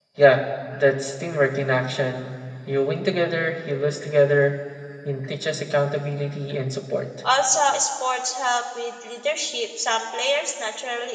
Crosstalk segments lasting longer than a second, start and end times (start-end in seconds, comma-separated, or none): none